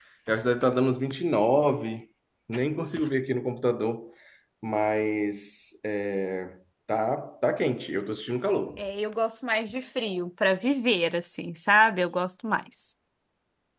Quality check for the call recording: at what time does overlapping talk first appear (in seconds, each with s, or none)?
none